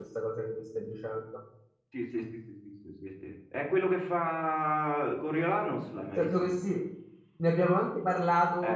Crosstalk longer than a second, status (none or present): none